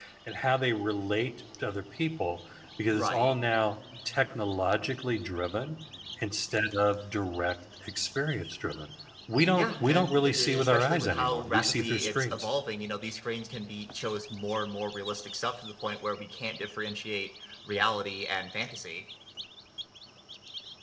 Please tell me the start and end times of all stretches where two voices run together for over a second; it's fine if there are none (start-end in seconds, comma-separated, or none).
9.5-12.5